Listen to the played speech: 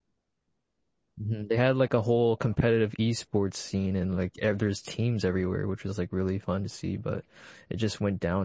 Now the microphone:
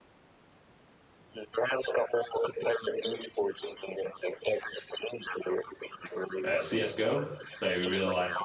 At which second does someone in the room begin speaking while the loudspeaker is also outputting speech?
6.5 s

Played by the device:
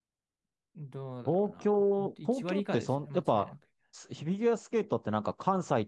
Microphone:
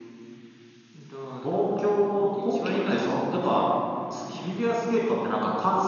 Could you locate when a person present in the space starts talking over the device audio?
none

